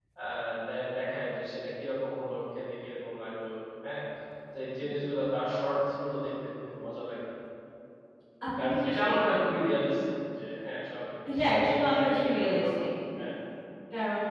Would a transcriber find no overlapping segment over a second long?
No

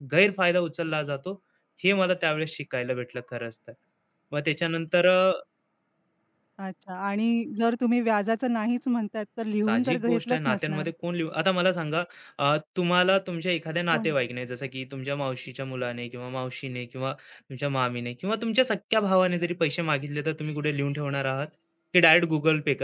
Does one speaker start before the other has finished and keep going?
Yes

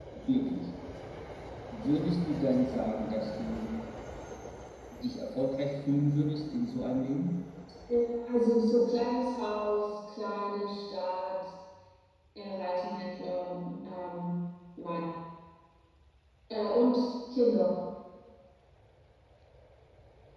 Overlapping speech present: No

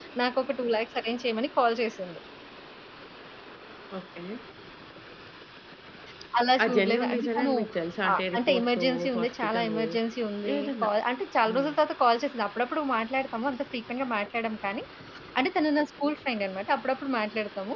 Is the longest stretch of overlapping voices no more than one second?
No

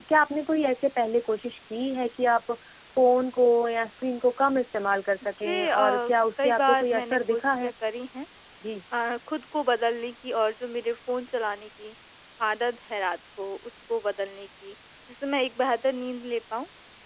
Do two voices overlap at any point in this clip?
Yes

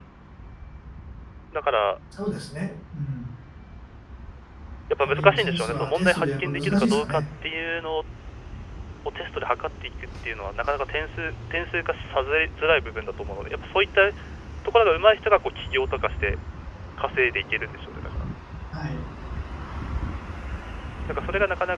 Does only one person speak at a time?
No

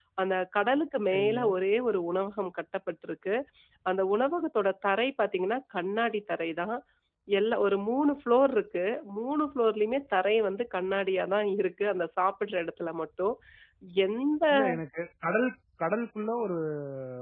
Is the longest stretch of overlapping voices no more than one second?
Yes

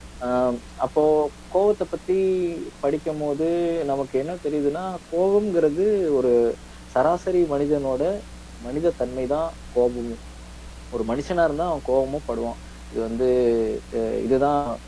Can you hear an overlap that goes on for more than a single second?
No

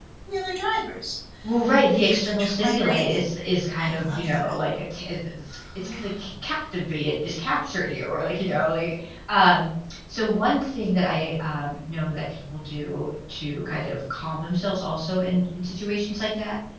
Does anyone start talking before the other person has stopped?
Yes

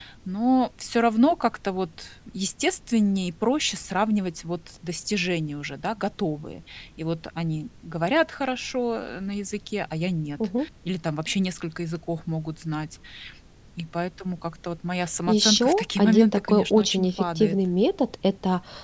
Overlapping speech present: Yes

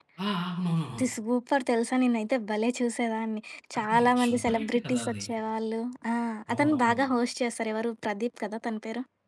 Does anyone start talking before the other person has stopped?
Yes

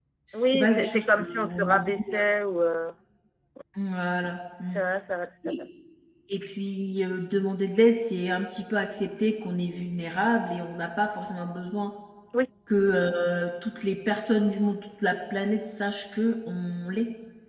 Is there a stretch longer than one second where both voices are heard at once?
Yes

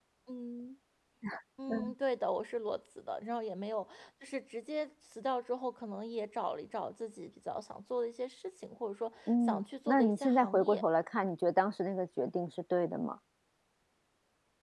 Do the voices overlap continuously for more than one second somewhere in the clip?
Yes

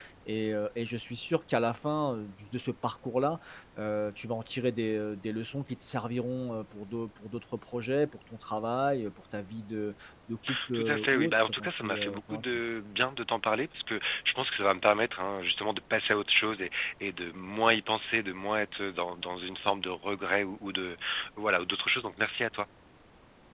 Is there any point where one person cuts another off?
Yes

